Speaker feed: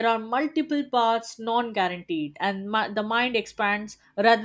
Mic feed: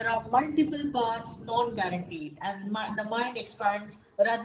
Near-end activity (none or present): none